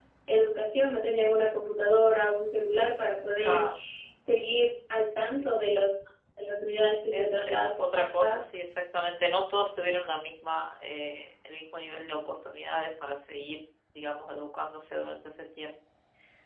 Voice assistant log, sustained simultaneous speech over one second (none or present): present